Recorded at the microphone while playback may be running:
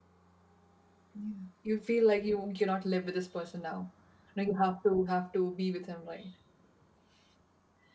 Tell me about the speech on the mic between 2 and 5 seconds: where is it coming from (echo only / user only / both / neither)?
user only